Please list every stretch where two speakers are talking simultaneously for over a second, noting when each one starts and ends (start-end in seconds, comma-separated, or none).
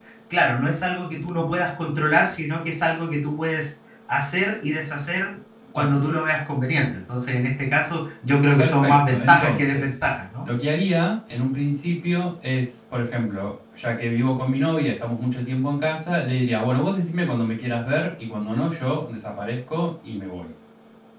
8.6-9.8